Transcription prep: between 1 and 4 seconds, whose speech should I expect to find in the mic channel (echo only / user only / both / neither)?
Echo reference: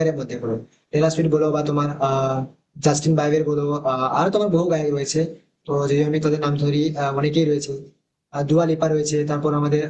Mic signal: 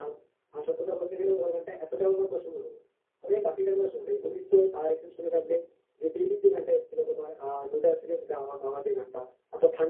user only